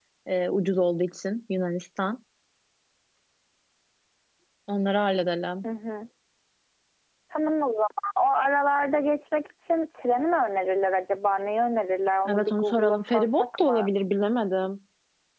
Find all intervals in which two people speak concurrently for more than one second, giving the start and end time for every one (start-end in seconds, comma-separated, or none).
12.3-13.9